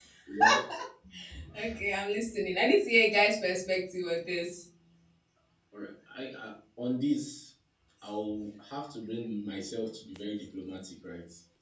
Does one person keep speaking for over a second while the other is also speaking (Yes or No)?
No